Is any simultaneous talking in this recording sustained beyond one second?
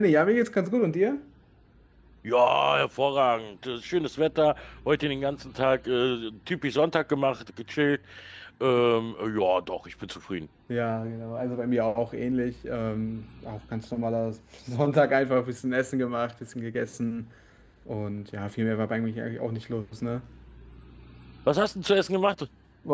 No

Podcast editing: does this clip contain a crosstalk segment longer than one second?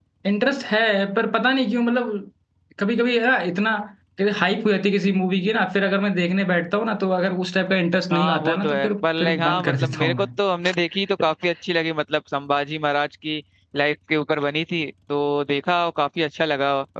Yes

